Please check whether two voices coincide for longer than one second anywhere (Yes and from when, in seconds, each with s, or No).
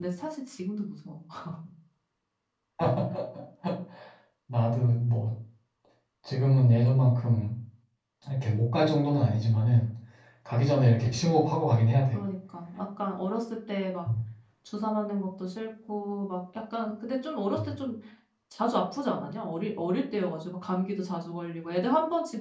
No